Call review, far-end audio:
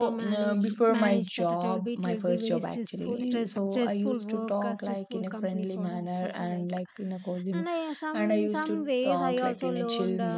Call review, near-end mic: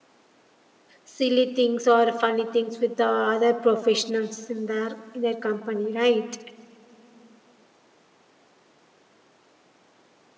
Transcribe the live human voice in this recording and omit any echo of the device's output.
silly things or funny things with the other professionals in their in their company right

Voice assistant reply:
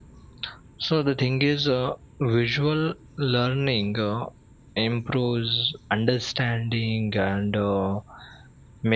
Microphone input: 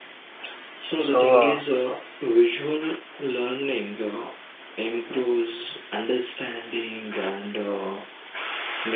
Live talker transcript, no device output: So, uh,

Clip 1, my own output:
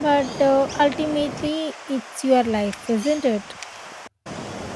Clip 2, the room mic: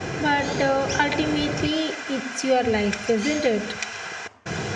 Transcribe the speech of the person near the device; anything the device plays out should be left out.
none

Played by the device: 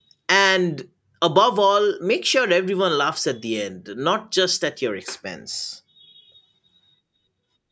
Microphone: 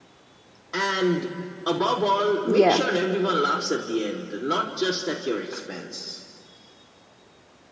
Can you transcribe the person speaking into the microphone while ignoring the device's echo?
Yeah.

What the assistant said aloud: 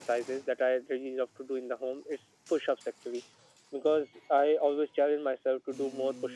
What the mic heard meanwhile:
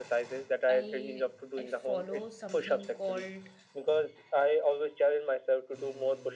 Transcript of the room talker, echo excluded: i i follow something called

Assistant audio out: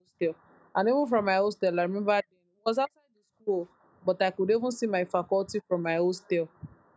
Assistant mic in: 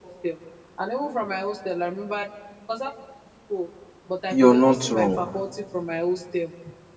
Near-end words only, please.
You're not wrong.

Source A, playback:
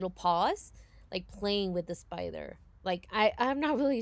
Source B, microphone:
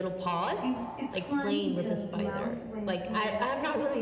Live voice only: it, it's funny because the mouse went to my

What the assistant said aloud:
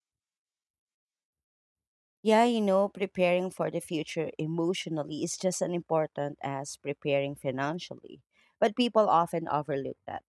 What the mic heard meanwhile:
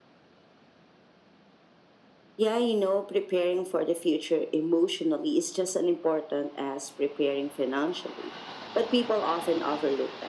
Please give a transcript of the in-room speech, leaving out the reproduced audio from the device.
none

